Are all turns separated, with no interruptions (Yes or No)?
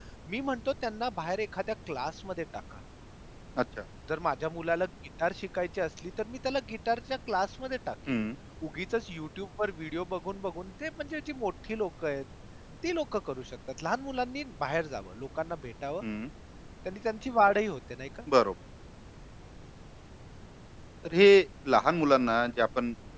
Yes